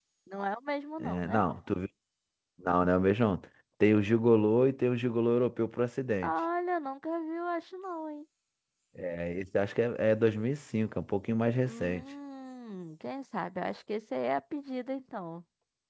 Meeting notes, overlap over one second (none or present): none